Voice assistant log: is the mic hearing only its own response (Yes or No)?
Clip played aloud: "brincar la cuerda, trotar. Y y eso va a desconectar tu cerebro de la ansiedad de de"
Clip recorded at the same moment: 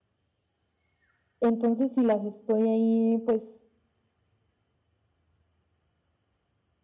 No